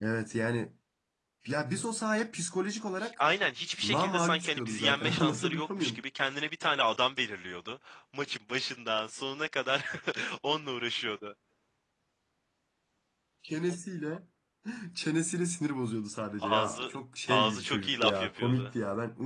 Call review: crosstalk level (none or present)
present